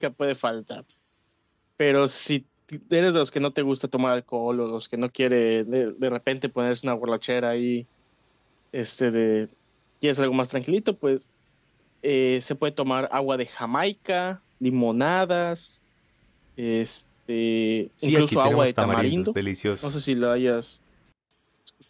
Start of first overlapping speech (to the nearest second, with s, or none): 18 s